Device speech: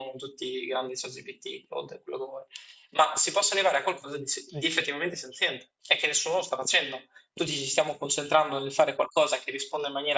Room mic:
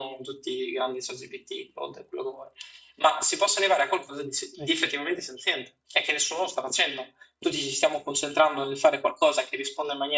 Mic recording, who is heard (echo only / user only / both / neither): echo only